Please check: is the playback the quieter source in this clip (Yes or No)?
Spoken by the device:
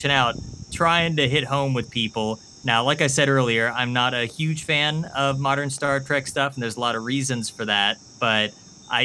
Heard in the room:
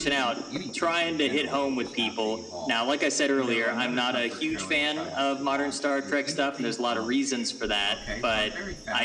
No